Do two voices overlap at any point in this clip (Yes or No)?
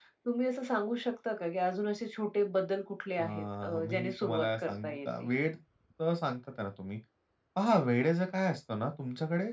Yes